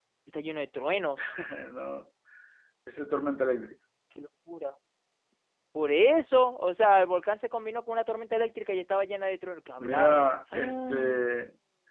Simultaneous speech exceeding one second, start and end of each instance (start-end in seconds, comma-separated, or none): 9.8-11.2